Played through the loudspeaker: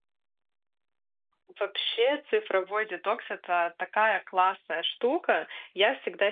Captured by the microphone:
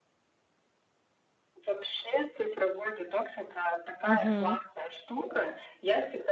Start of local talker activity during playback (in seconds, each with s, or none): 4.0 s